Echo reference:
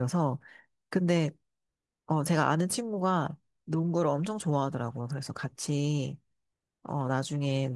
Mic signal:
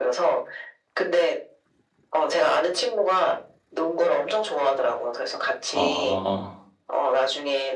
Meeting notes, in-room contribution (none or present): present